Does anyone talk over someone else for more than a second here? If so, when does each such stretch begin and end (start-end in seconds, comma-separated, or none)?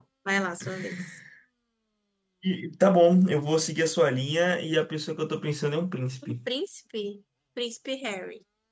none